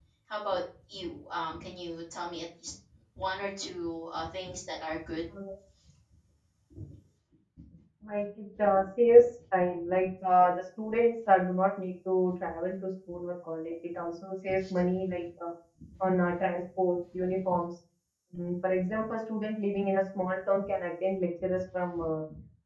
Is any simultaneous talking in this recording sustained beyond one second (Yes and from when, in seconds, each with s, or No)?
No